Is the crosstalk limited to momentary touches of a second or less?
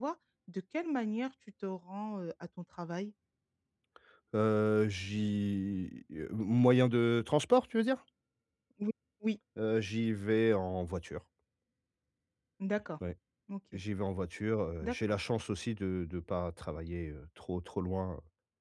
Yes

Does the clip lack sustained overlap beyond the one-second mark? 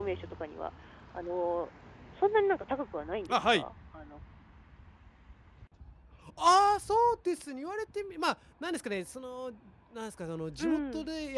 Yes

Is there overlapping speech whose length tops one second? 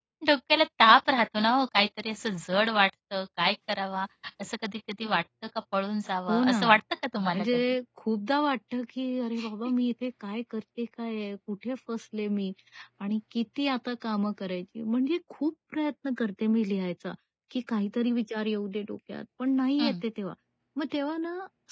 No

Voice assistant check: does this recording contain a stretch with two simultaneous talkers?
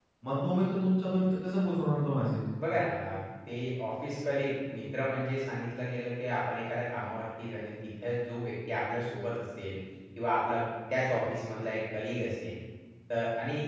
No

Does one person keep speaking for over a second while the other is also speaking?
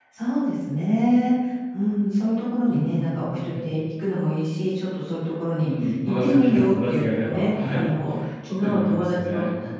Yes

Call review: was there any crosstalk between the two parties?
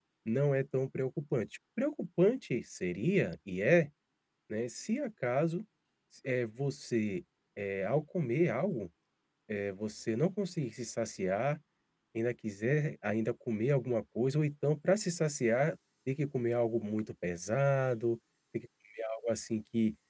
No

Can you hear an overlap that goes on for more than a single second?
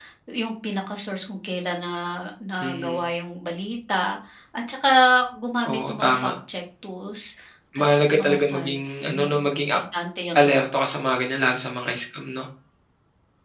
Yes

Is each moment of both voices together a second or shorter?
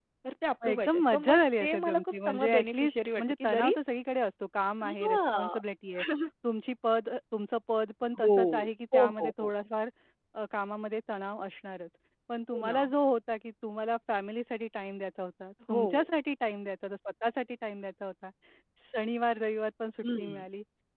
No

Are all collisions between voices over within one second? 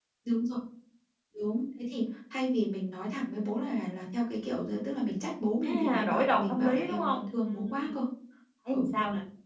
No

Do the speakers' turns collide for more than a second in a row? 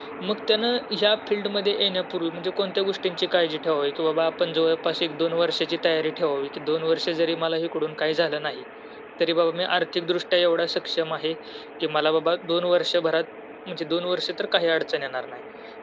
No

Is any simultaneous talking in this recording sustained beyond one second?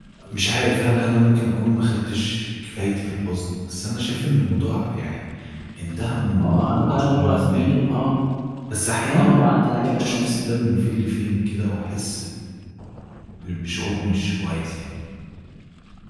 Yes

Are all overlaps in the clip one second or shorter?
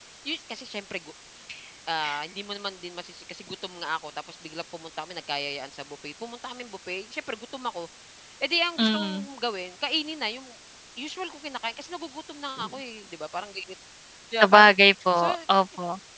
Yes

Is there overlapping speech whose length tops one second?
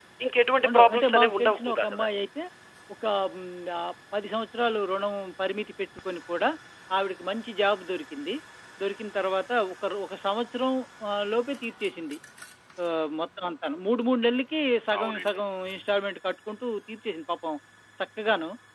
Yes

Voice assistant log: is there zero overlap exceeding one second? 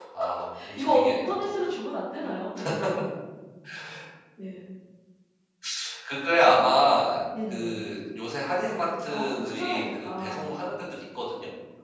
No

